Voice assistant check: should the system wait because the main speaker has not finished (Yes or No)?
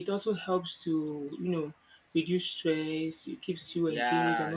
No